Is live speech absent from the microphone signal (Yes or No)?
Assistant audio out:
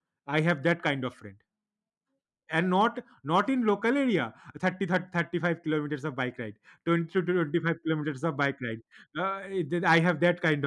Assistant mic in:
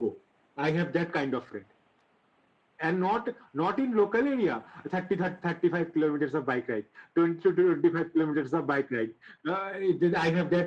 Yes